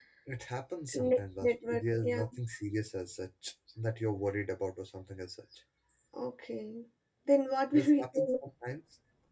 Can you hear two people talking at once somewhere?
Yes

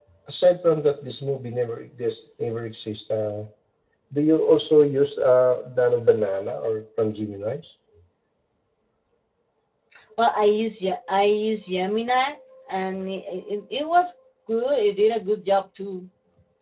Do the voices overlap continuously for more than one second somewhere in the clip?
No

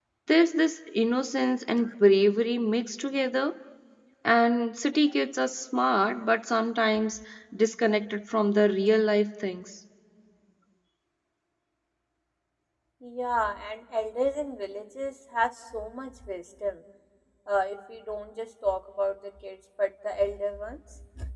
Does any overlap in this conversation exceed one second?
No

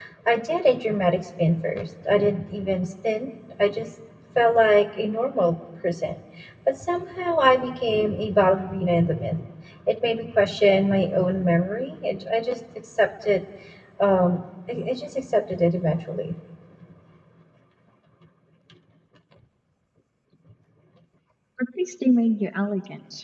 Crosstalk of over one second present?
No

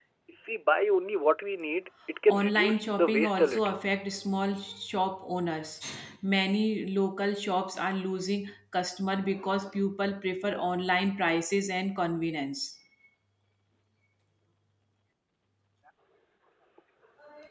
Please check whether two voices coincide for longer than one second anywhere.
Yes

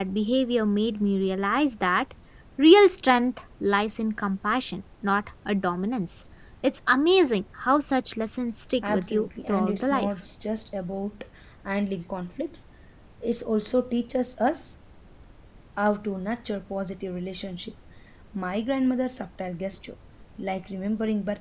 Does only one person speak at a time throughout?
No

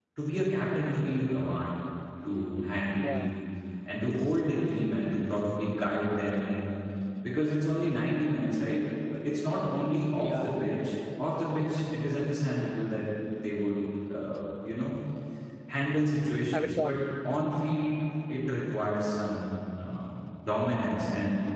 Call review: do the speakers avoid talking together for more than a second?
Yes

